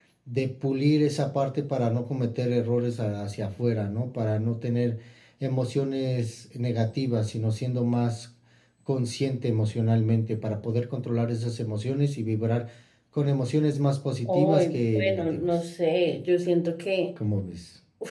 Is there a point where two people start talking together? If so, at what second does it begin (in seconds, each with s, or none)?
14.2 s